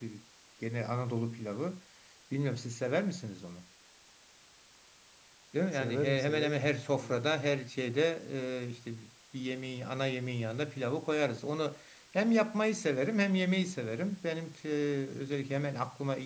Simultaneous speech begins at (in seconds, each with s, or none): 5.7 s